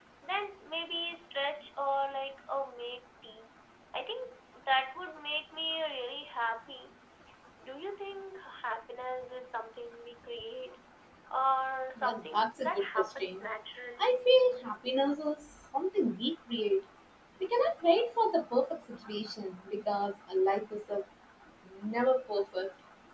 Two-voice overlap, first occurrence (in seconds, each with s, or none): 12.0 s